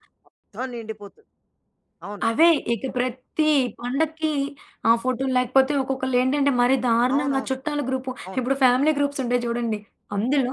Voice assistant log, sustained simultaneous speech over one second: none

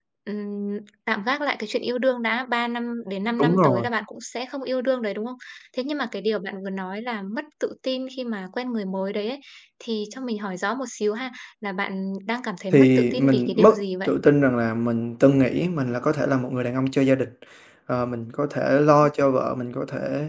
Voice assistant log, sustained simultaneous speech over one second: present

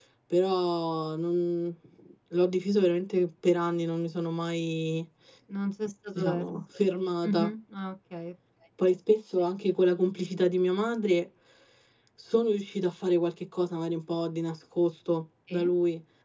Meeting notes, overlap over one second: none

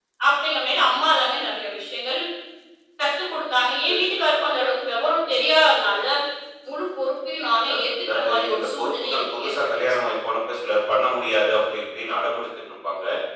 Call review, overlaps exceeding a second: present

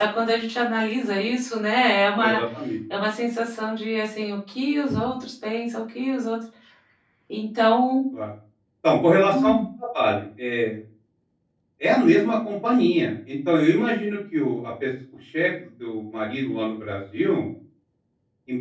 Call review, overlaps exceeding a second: none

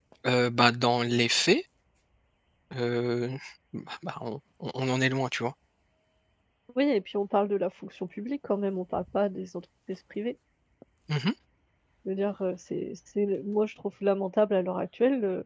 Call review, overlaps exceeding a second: none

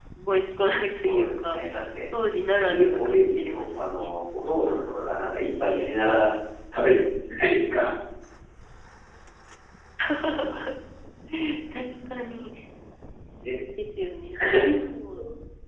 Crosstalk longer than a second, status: present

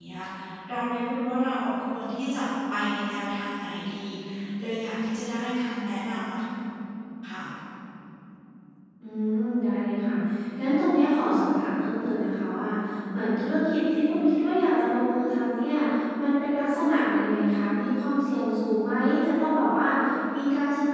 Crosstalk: none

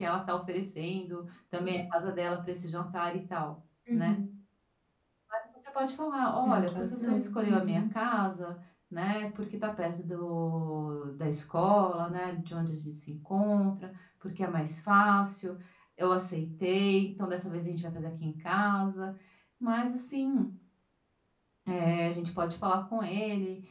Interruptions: present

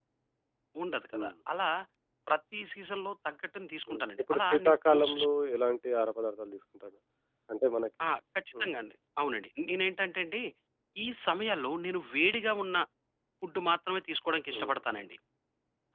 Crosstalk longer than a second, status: present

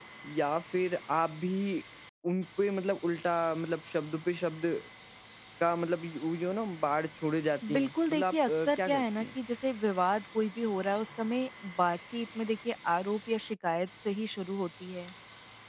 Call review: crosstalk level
present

